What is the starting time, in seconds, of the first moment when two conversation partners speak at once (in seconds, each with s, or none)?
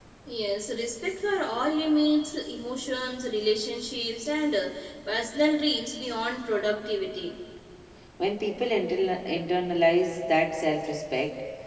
none